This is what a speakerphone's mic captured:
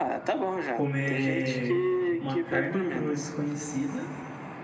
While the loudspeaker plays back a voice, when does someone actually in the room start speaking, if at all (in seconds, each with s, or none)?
0.7 s